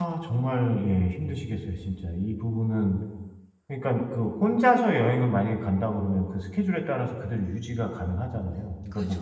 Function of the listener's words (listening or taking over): listening